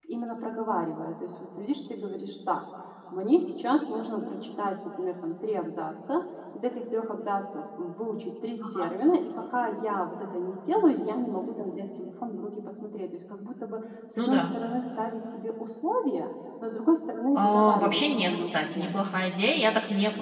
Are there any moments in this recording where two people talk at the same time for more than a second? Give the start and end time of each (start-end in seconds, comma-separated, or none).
17.4-18.9